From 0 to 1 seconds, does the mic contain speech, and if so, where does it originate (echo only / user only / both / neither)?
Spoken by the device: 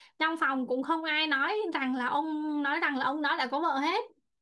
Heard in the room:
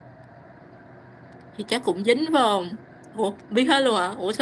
neither